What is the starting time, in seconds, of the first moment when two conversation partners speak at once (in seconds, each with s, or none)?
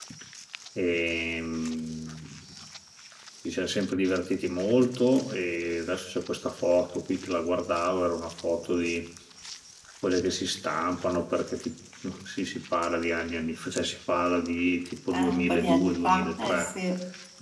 15.1 s